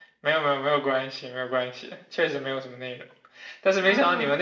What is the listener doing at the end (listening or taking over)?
listening